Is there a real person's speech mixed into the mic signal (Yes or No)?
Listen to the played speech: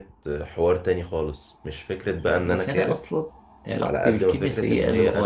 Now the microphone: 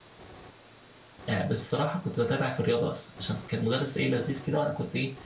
Yes